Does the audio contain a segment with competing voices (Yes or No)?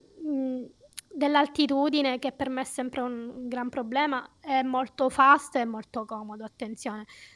No